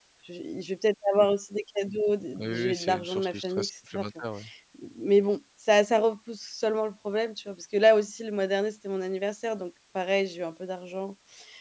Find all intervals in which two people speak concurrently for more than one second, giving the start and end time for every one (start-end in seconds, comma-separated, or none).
2.4-4.0